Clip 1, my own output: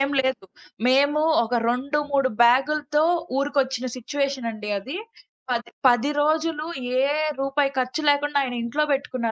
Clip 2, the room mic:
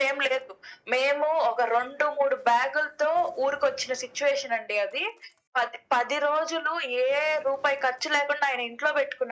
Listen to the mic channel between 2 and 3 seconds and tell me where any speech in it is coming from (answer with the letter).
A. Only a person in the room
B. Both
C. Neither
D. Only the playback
D